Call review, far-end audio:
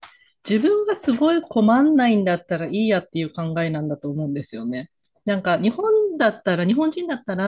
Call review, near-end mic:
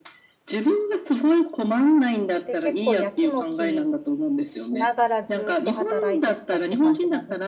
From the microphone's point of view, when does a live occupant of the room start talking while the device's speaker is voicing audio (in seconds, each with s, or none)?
2.4 s